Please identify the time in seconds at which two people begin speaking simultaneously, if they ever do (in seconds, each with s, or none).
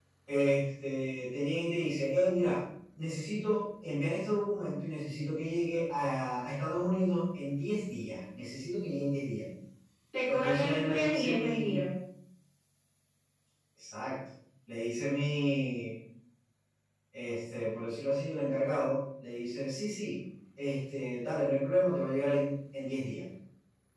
10.3 s